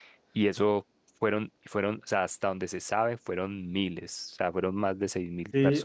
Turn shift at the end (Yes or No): Yes